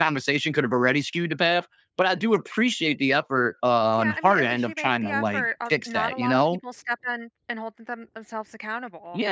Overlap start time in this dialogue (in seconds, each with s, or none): 4.0 s